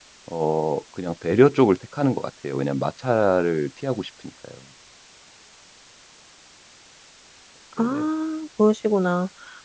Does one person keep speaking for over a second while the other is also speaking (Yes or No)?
No